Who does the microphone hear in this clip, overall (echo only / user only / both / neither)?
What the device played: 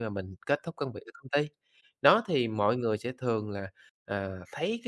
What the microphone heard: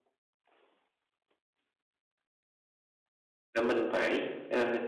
user only